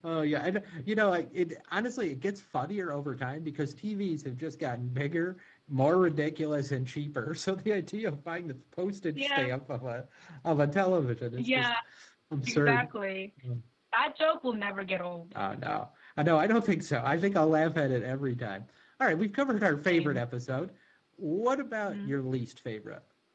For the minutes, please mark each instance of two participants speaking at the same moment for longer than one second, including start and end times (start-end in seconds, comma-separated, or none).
none